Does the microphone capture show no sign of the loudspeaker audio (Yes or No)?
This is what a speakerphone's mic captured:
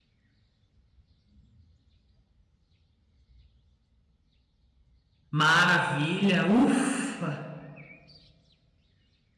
Yes